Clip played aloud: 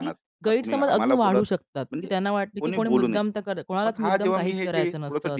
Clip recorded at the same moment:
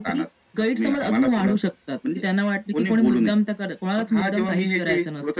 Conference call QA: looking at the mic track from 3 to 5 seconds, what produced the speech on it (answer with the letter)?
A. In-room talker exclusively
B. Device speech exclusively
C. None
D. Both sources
B